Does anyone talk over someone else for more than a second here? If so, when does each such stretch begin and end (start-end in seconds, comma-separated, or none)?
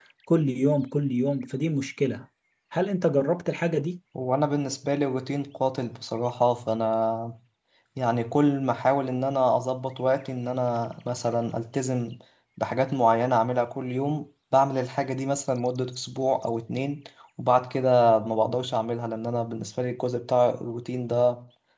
none